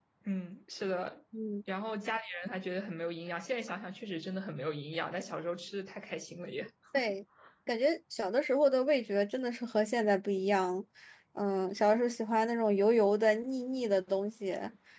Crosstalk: none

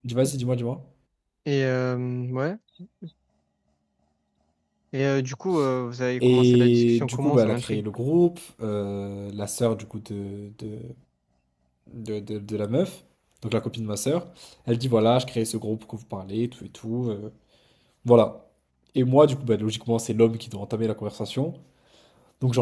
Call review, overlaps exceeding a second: present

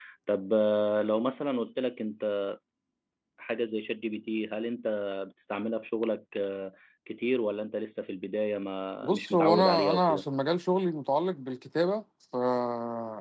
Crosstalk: present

